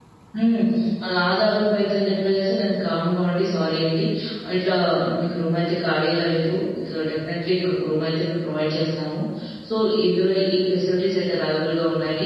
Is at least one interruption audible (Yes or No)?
No